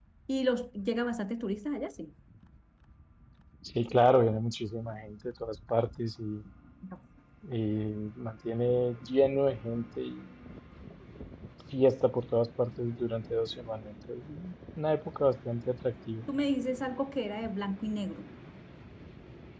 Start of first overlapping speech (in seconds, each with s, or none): none